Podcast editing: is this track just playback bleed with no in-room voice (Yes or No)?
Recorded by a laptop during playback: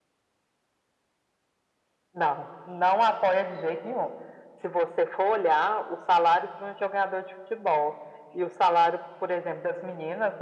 Yes